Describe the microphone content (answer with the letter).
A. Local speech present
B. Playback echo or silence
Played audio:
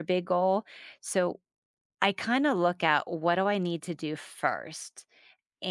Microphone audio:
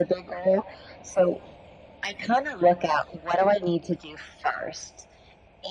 B